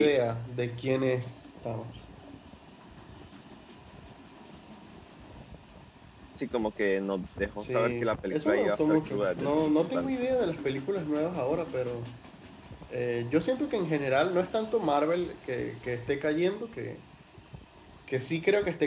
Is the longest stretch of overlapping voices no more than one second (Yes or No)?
No